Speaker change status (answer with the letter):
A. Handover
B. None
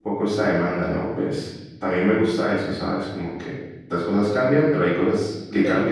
A